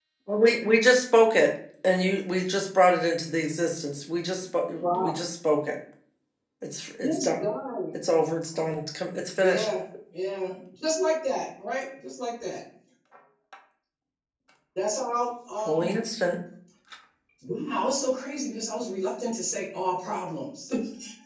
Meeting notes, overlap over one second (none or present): none